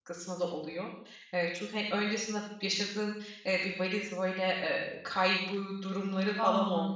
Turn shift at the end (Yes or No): No